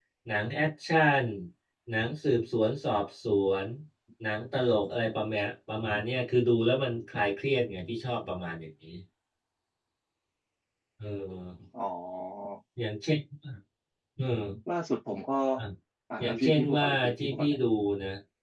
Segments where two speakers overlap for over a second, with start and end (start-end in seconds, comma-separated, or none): 16.2-17.6